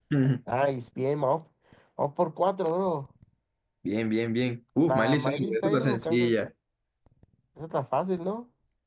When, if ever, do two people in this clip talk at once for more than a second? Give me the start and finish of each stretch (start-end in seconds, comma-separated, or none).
4.8-6.3